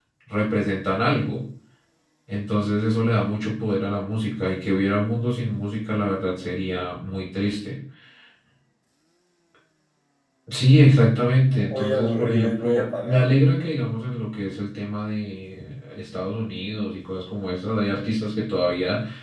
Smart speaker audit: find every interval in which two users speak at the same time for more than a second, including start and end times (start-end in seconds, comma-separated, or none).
11.4-13.3